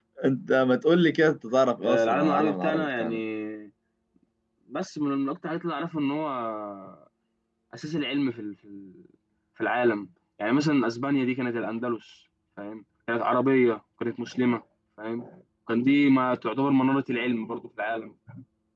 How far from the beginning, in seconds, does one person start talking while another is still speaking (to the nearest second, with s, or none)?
2 s